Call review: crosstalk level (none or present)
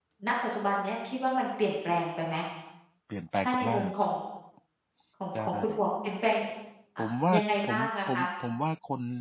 present